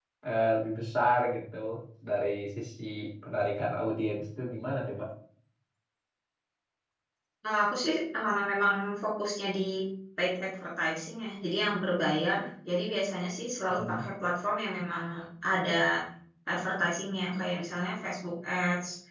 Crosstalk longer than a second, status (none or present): none